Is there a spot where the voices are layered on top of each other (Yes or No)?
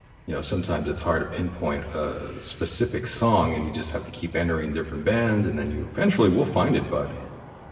No